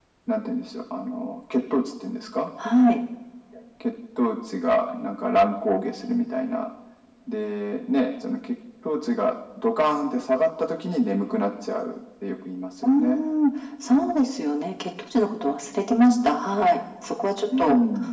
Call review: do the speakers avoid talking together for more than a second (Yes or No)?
Yes